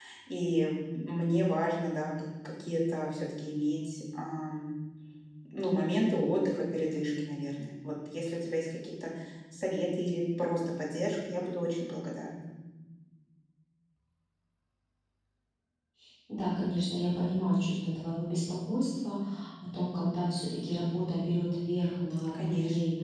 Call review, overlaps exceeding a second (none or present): none